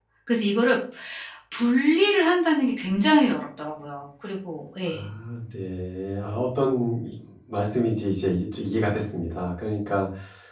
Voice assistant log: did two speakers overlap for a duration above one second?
No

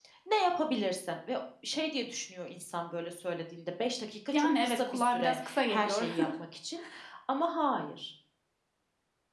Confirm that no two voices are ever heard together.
No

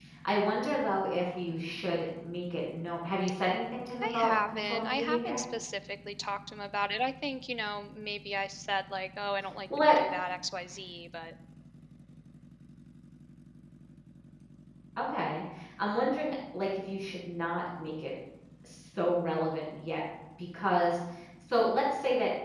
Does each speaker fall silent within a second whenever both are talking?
No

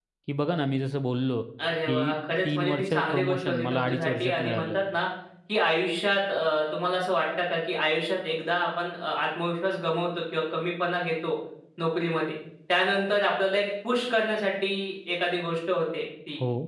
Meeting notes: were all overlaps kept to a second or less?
No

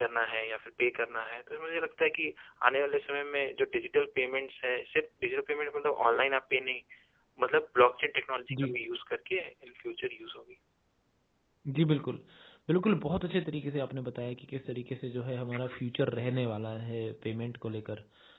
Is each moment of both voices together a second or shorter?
Yes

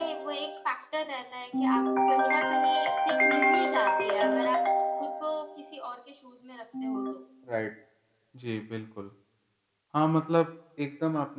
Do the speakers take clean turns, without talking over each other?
Yes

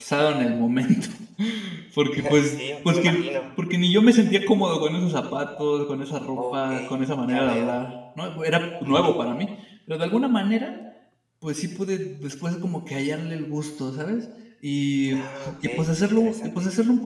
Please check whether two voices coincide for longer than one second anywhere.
Yes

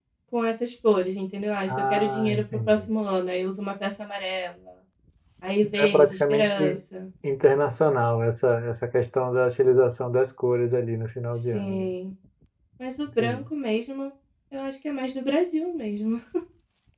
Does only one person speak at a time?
No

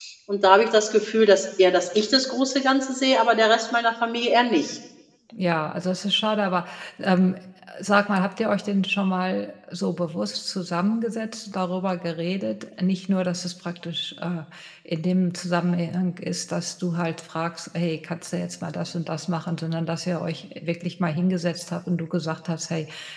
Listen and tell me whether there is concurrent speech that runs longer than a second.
No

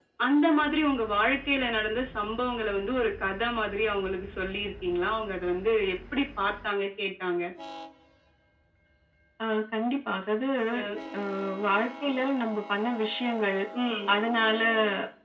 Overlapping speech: No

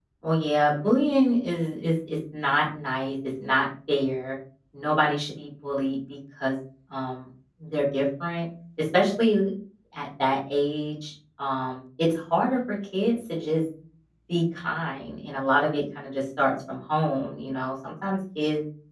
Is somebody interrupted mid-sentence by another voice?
No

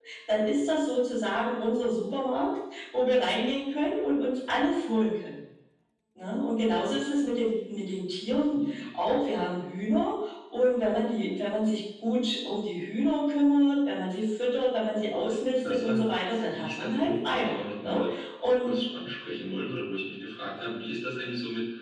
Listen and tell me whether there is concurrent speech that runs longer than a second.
Yes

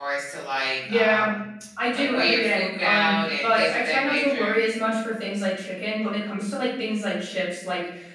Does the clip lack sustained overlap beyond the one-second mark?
No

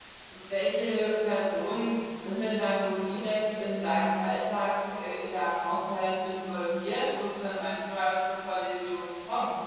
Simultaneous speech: No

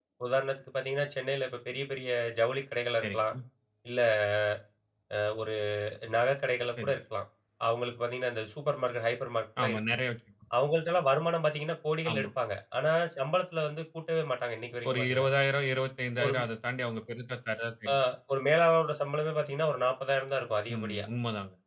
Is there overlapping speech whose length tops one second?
No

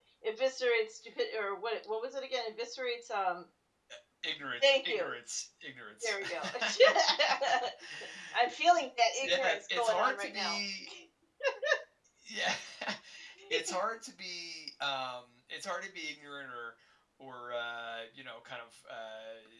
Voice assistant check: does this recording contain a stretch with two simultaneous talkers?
Yes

